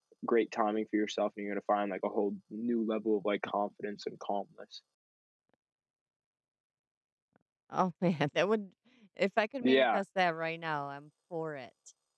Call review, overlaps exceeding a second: none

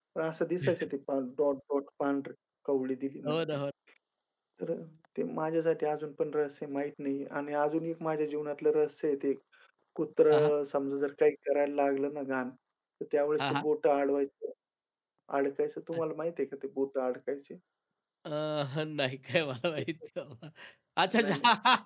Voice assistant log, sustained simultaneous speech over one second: none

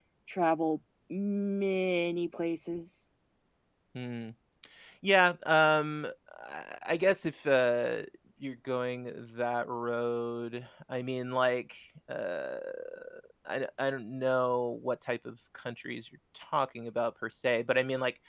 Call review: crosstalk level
none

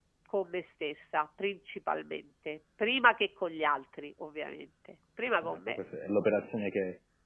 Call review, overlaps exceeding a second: none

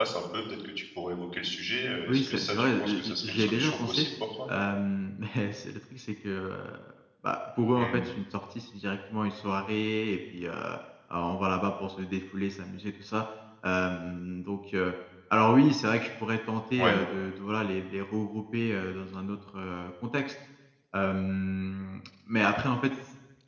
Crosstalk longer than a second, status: present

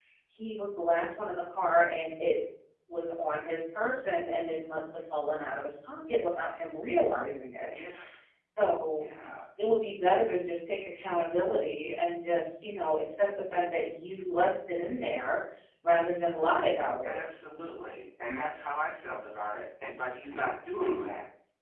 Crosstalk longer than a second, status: none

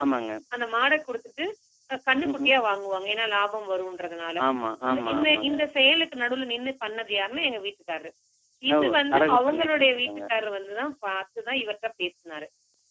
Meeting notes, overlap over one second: present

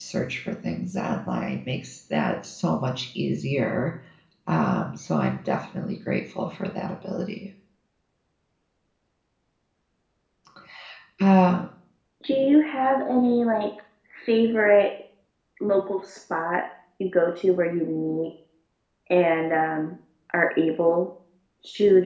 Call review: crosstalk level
none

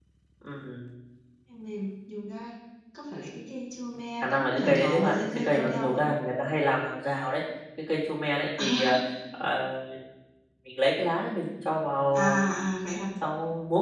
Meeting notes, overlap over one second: present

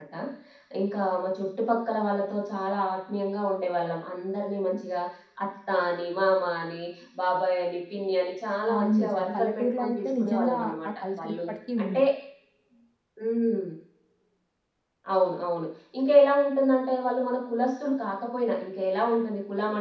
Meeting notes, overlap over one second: present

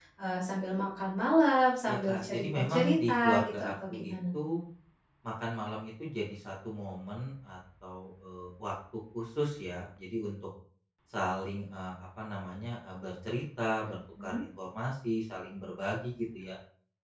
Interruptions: present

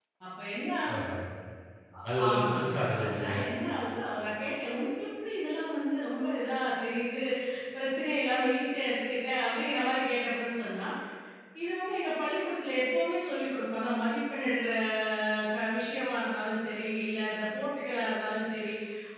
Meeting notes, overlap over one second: present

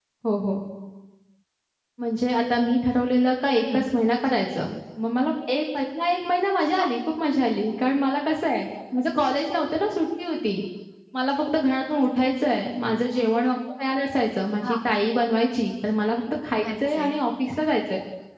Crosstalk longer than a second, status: none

